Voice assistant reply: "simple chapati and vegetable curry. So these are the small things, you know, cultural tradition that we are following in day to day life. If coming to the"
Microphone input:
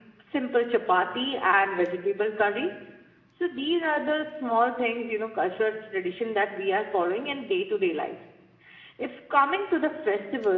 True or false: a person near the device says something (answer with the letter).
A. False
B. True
A